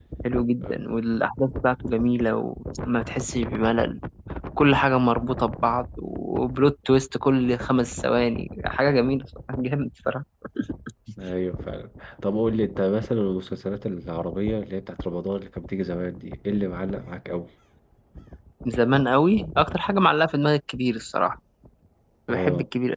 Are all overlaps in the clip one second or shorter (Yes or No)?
Yes